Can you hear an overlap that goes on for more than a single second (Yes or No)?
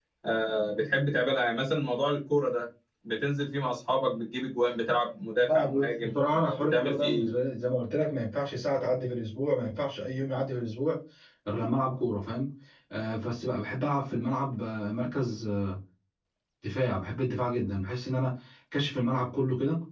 Yes